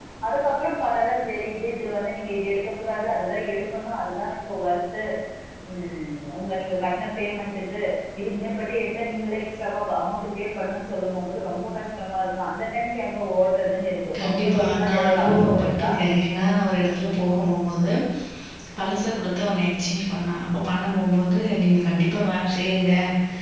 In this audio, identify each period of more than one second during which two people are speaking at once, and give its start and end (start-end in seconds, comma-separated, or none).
14.2-15.9